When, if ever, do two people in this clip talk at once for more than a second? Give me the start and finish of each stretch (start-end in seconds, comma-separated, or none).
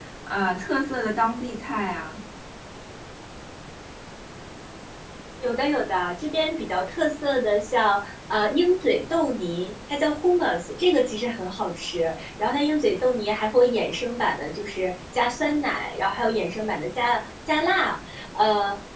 none